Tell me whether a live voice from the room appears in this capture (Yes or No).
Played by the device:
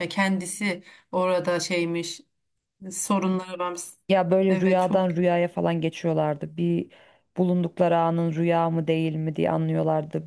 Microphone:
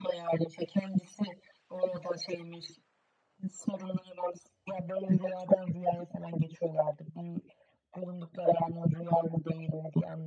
No